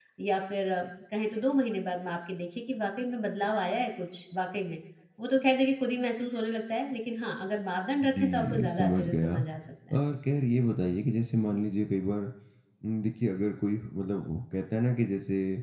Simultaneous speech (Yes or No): Yes